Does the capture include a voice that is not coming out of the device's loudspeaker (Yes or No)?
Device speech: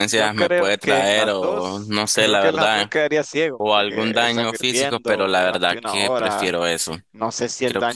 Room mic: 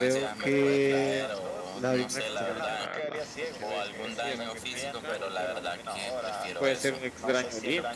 Yes